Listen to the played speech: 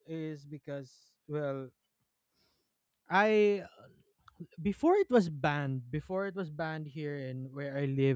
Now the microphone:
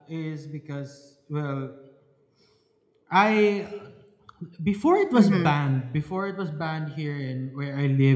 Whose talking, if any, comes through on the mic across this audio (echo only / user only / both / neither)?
both